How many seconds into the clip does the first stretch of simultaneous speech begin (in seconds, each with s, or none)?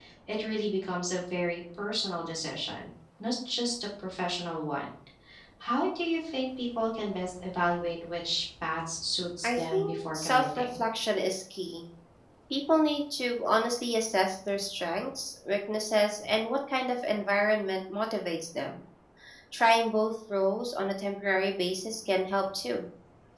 9.4 s